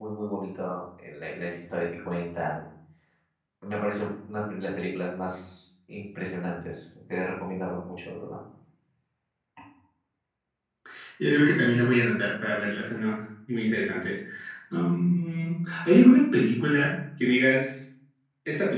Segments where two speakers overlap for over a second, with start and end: none

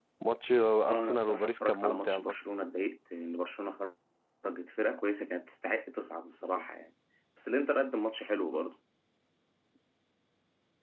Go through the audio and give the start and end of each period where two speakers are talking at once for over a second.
0.9-2.4

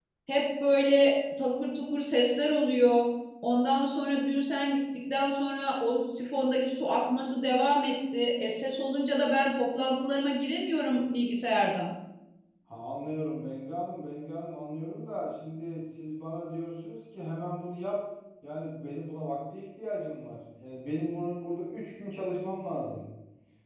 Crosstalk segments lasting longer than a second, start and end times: none

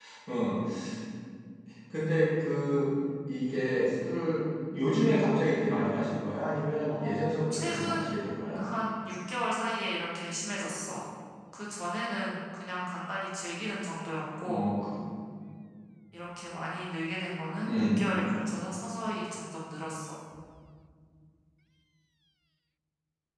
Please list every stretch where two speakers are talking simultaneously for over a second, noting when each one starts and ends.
6.9-8.7

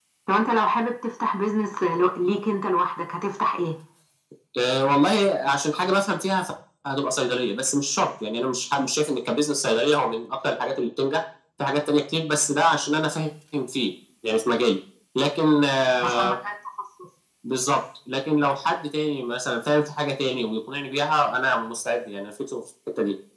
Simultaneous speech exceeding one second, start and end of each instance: none

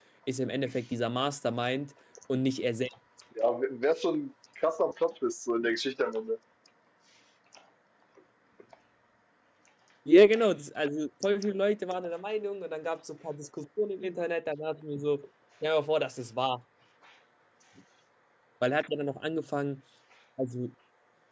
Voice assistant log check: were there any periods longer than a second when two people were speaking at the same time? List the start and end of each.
none

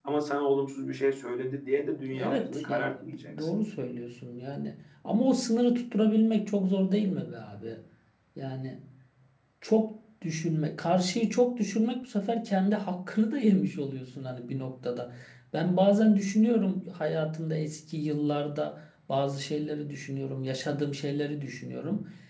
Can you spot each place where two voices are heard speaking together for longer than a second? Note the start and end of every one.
2.1-3.5

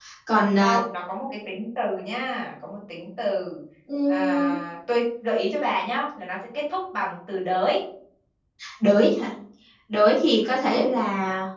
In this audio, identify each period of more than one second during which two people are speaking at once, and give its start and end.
none

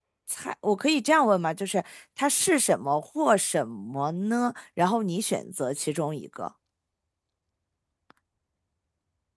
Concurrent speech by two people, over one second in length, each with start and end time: none

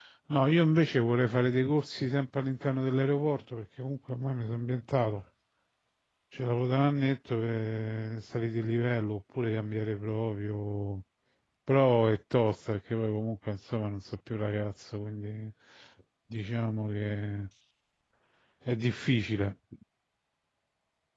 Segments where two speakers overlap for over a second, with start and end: none

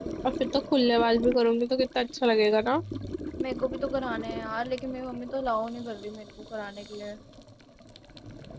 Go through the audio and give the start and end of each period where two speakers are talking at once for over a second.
none

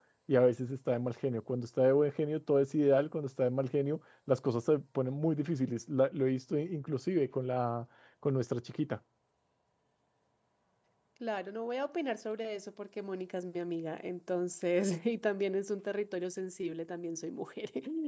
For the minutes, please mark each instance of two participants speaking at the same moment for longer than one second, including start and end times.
none

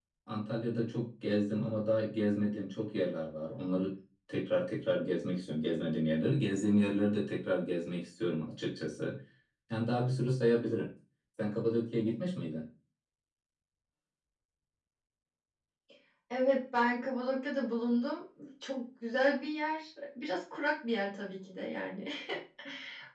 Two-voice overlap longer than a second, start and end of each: none

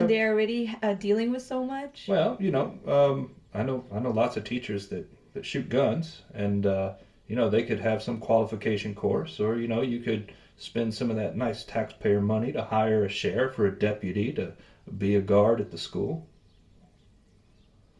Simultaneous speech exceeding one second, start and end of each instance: none

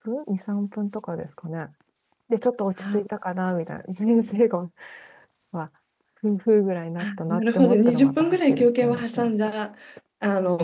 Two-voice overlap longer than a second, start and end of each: 7.0-9.5

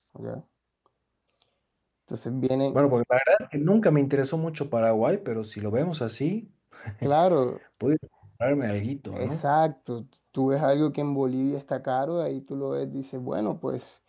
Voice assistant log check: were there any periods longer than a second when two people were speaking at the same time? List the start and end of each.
none

